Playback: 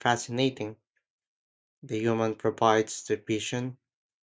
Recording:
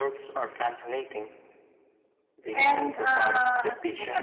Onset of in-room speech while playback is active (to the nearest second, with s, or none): 3 s